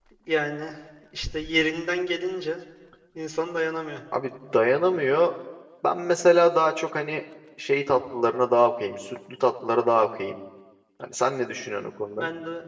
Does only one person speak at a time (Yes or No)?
Yes